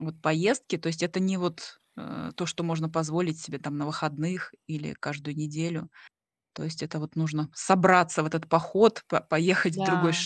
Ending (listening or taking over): listening